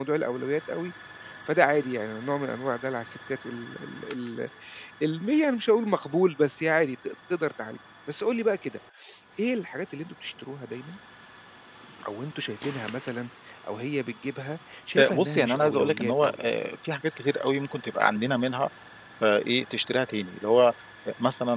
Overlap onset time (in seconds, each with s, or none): 15.0 s